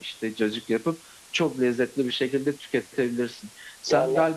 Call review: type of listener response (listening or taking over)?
listening